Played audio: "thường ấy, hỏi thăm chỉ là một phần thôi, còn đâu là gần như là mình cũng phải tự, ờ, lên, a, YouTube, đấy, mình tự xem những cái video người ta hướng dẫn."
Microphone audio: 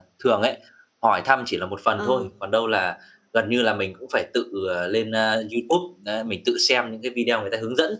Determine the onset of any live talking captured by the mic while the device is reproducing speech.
1.9 s

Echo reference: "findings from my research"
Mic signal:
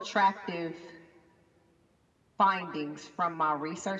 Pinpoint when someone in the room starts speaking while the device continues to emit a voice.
none

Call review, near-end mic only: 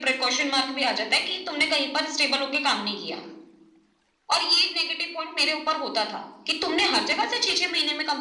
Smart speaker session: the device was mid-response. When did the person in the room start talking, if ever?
none

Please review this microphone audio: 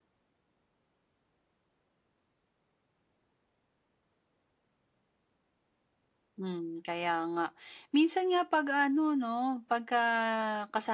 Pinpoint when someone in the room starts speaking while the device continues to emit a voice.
6.3 s

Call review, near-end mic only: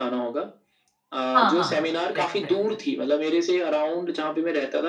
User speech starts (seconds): 1.4 s

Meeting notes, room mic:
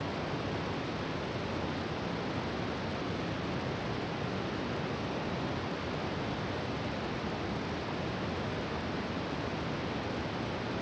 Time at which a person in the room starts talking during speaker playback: none

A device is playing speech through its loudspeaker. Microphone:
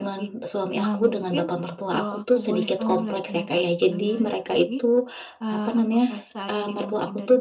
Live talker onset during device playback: none

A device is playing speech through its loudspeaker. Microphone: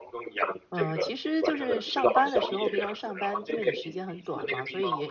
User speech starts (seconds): 0.7 s

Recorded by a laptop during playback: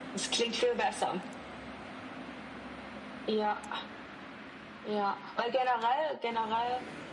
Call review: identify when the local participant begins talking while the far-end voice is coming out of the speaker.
none

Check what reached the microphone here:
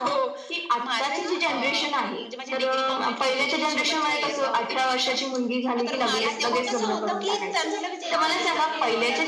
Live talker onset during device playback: 6.8 s

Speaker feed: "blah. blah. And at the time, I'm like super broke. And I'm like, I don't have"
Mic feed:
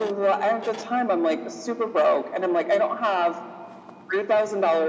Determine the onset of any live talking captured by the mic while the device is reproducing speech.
none

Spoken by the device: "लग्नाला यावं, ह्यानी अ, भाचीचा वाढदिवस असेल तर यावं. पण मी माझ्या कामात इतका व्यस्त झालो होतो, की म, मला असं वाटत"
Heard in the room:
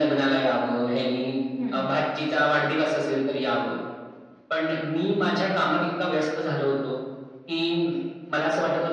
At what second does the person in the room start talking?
1.6 s

